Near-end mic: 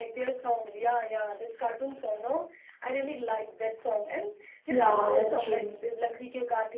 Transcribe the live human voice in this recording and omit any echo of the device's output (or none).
Yeah, that's true.